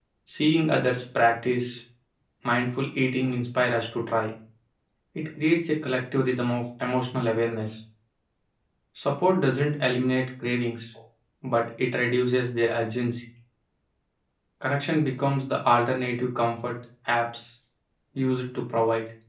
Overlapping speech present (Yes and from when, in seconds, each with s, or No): No